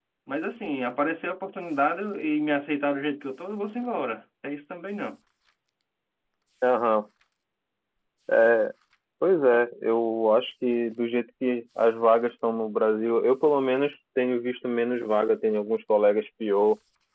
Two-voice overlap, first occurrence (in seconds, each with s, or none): none